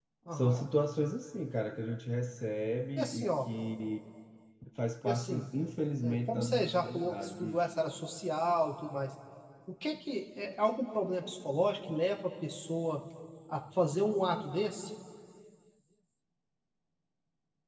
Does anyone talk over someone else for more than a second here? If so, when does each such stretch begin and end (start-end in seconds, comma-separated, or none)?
6.0-7.6